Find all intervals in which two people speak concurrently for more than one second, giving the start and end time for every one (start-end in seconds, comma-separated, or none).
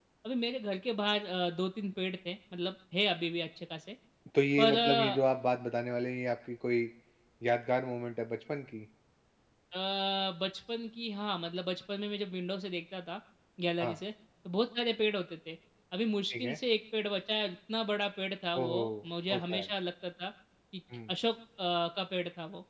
none